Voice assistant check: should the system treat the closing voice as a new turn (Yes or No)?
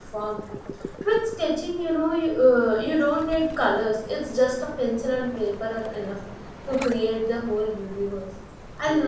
No